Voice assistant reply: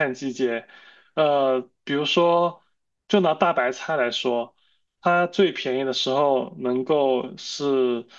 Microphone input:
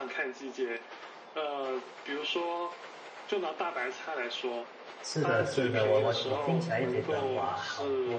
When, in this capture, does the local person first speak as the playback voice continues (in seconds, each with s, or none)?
5.0 s